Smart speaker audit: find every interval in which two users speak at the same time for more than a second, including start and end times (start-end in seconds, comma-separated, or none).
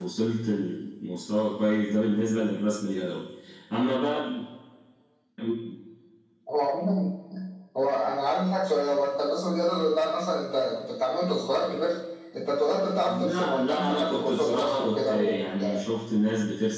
13.0-15.8